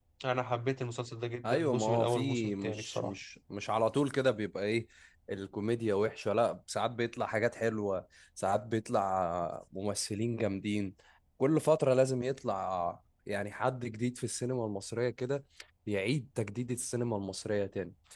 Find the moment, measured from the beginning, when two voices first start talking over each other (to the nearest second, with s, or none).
1 s